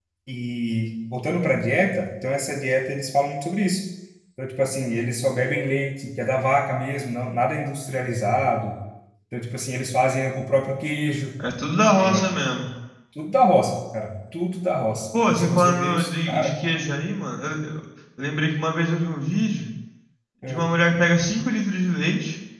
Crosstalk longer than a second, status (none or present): present